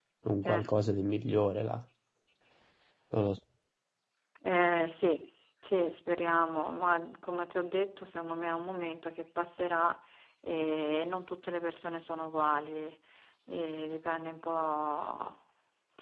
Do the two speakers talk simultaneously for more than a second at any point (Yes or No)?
No